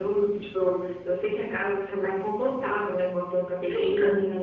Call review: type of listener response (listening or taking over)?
listening